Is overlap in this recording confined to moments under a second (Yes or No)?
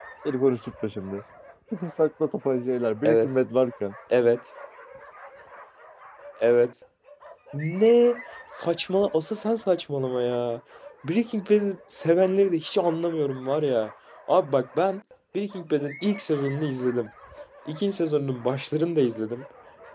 Yes